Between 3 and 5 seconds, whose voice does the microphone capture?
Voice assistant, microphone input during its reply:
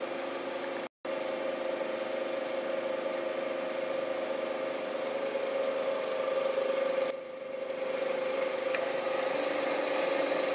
neither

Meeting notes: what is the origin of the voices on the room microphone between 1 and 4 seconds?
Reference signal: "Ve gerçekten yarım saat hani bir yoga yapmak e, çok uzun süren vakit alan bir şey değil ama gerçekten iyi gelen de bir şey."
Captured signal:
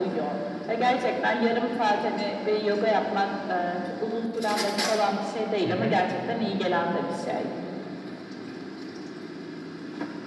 echo only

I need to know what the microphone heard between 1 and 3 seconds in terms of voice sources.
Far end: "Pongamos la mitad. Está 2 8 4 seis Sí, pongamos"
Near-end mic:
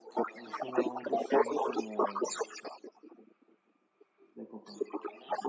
both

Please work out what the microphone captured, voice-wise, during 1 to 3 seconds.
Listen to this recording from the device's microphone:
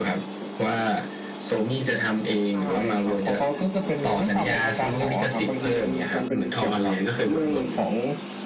echo only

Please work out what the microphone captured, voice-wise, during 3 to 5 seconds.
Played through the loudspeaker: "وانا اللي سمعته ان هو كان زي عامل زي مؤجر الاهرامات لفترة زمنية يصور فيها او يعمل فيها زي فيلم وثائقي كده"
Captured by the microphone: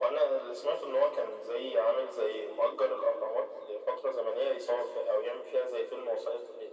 echo only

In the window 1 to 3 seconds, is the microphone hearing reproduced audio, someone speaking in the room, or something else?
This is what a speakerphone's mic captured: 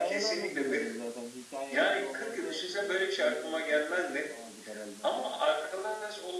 both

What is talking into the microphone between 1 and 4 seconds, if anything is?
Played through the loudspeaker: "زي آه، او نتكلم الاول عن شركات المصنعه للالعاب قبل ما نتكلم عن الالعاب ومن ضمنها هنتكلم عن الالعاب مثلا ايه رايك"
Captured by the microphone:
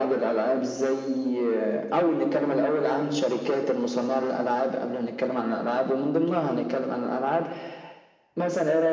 echo only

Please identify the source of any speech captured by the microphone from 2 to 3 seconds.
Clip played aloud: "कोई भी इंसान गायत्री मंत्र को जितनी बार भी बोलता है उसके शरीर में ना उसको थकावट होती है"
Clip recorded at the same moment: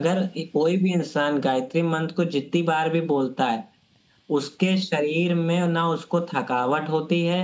echo only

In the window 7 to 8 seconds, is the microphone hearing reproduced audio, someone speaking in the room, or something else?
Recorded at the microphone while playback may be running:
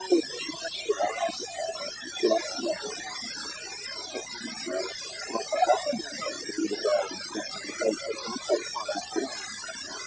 echo only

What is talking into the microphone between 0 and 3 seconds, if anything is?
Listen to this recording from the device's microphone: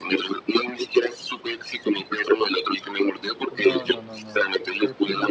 echo only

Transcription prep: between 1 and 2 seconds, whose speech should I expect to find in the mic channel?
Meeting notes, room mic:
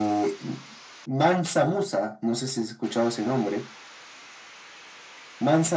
echo only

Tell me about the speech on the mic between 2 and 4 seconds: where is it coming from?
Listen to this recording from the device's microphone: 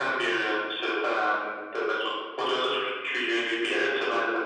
echo only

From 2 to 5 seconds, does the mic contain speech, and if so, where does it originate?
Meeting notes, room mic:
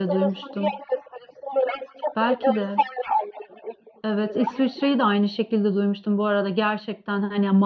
both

